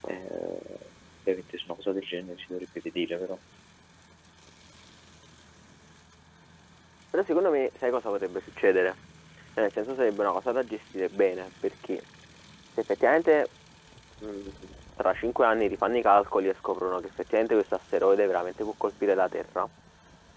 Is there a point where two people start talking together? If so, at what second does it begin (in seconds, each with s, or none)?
none